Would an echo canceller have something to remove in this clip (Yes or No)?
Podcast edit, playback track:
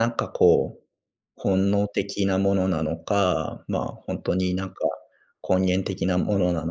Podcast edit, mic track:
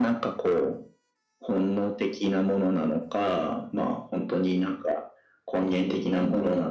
Yes